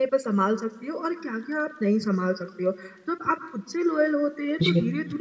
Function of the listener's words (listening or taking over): listening